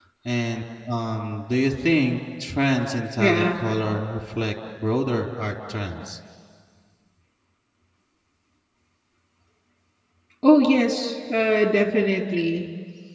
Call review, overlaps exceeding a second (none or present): none